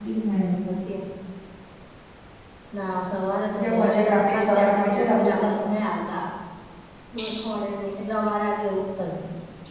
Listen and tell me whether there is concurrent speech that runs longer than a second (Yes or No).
Yes